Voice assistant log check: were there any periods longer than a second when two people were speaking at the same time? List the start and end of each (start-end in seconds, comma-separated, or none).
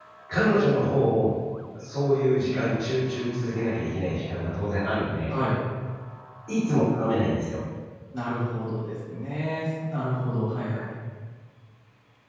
none